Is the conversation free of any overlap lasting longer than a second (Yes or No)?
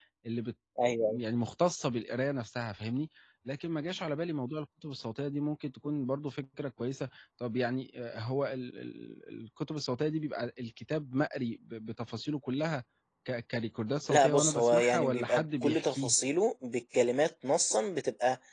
No